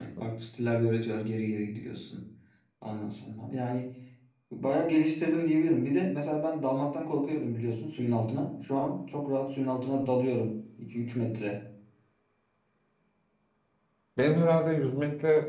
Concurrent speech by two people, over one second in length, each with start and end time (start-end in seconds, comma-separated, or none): none